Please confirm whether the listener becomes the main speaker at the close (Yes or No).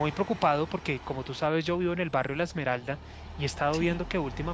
No